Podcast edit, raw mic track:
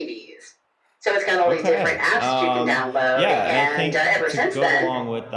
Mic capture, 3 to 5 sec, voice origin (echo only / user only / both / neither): both